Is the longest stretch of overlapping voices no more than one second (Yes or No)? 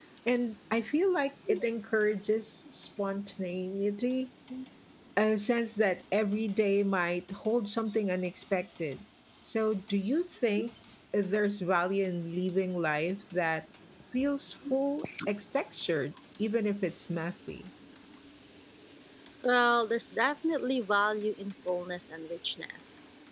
Yes